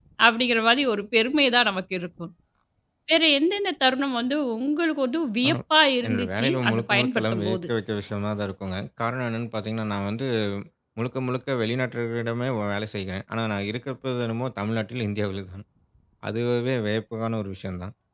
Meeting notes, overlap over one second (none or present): present